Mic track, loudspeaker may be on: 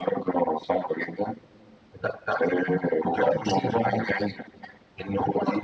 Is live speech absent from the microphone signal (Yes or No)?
Yes